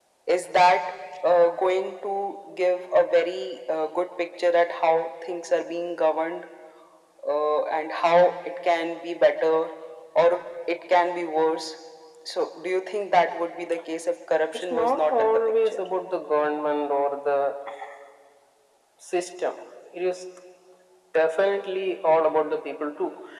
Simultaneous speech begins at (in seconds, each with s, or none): 14.5 s